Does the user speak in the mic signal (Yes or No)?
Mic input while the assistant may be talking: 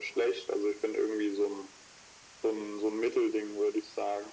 No